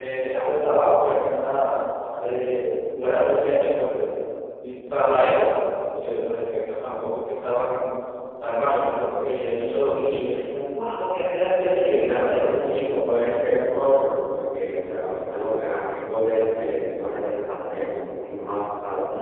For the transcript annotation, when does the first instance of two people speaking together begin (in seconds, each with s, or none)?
11.8 s